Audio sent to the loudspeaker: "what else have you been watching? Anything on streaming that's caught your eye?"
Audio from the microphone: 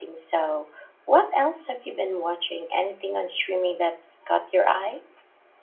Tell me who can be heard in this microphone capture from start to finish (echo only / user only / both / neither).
echo only